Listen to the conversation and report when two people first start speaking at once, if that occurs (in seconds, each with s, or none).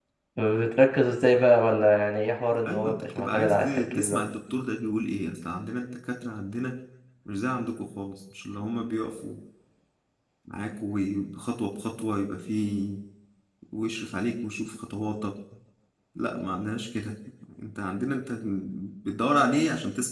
2.7 s